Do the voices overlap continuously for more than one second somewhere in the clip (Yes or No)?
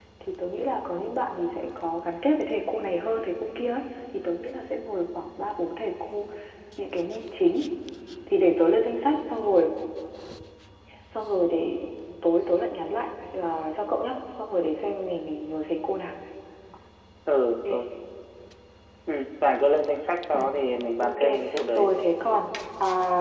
No